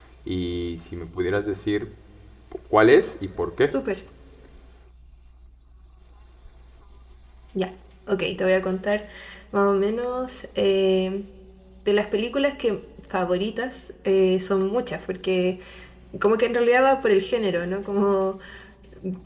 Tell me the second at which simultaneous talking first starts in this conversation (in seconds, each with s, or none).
none